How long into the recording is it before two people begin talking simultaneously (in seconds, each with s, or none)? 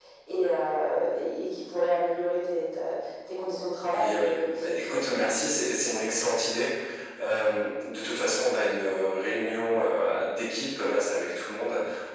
3.8 s